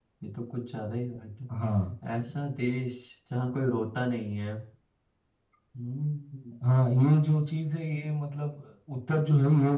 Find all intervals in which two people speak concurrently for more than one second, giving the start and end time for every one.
none

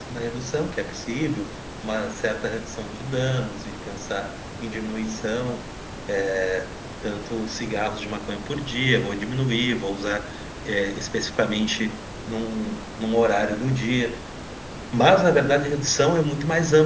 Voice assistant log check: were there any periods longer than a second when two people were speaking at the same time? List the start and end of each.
none

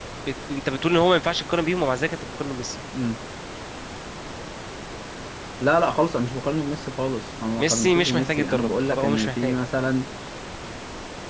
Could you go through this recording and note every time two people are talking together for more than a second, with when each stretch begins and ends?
7.6-9.6

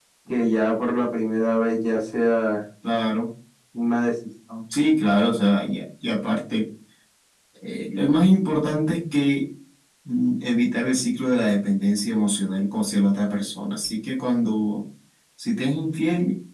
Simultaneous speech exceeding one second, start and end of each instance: none

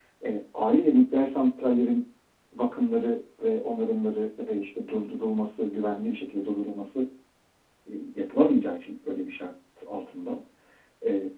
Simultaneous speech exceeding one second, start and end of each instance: none

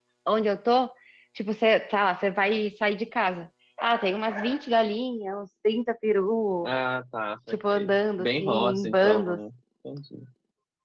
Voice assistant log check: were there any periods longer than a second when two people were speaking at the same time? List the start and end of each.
7.5-9.4

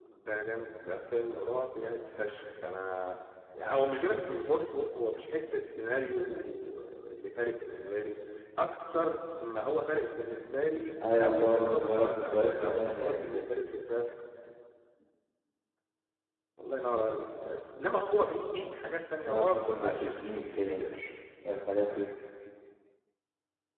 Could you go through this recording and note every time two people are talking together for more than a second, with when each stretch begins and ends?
11.1-13.5, 19.2-20.9

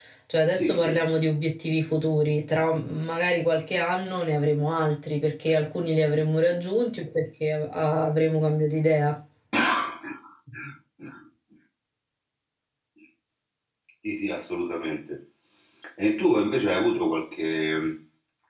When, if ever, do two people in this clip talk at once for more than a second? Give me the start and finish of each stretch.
none

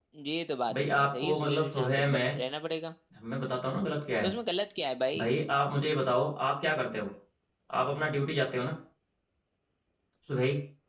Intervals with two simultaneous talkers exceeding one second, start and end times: 0.7-2.4

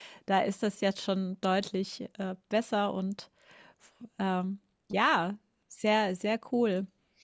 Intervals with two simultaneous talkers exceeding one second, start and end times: none

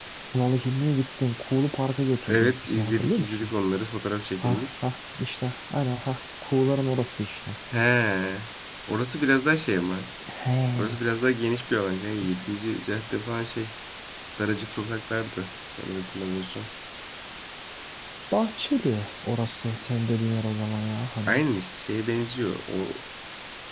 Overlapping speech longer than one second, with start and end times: 2.3-3.5

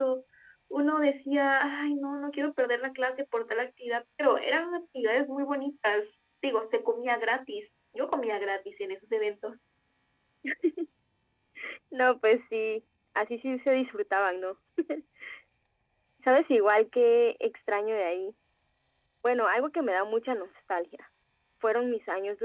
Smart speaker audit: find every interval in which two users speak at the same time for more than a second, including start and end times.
none

